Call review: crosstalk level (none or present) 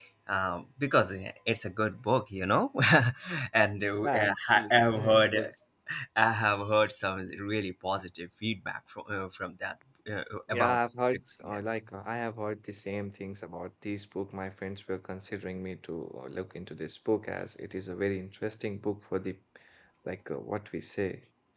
present